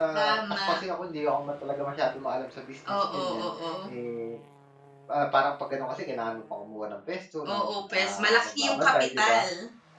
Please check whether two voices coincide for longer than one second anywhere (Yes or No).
Yes